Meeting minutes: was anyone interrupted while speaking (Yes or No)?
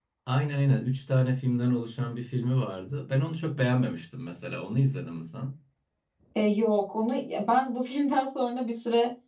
No